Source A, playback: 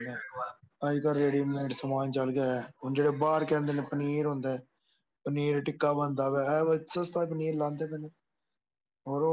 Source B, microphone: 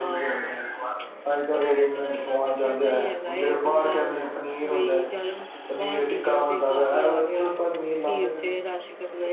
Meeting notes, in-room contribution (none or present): present